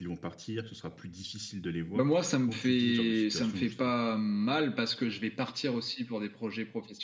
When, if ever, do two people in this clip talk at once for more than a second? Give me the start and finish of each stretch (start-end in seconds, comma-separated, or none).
1.9-3.9